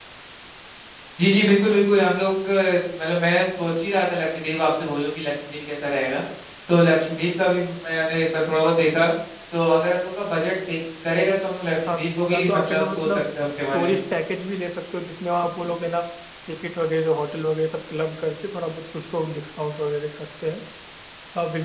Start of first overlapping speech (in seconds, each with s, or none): 11.9 s